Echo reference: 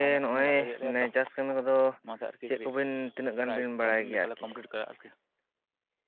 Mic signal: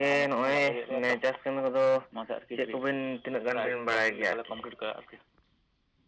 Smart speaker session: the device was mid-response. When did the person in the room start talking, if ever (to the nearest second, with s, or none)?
none